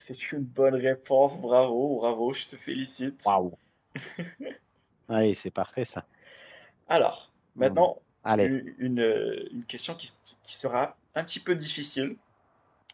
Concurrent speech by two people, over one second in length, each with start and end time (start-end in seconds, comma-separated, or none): none